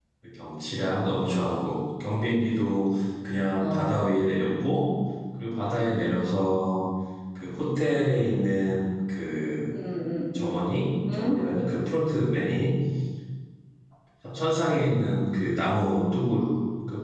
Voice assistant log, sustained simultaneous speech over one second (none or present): none